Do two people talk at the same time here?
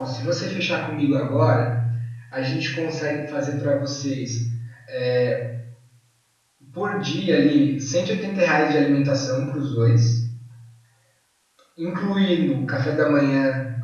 No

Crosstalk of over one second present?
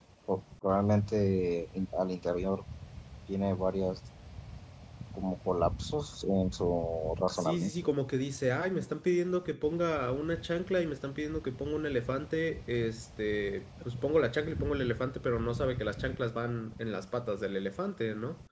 No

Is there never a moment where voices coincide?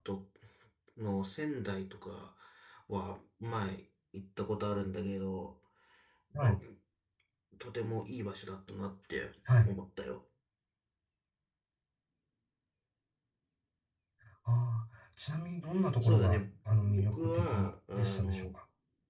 No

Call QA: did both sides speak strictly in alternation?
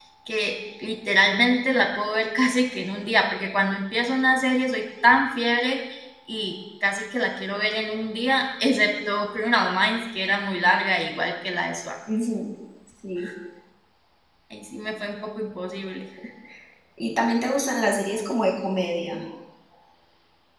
Yes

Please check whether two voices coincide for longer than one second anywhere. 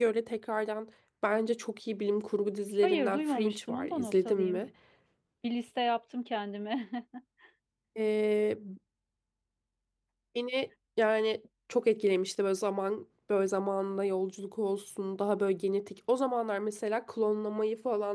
Yes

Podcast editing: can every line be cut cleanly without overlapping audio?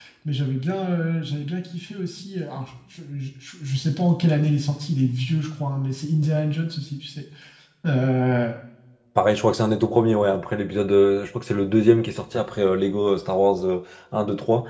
Yes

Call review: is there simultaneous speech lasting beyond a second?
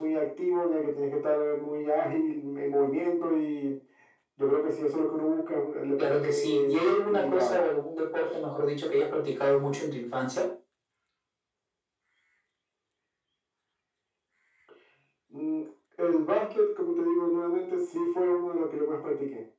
Yes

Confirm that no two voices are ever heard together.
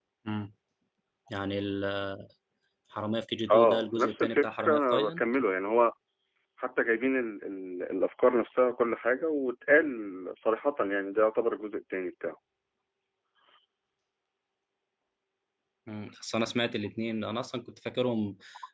No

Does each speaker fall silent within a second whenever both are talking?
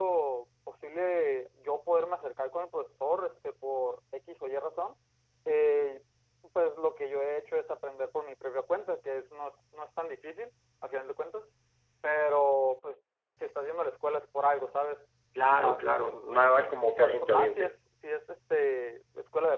No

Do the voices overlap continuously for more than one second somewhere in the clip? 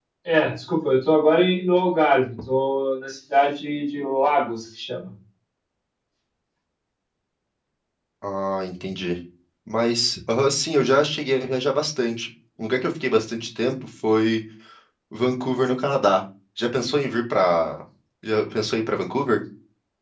No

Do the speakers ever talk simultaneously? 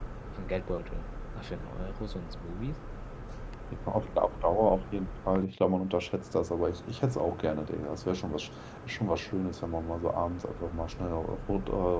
No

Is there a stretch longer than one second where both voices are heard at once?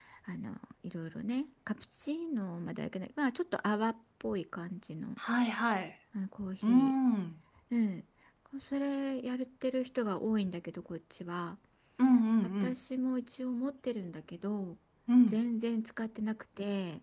No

